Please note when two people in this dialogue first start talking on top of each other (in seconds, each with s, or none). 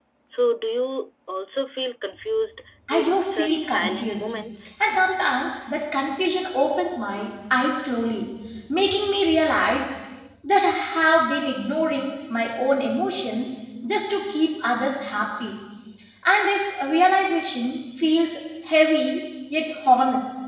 2.9 s